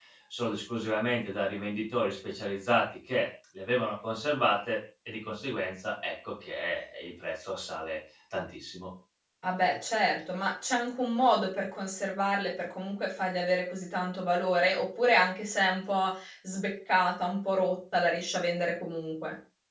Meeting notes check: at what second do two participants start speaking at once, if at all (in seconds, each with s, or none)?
none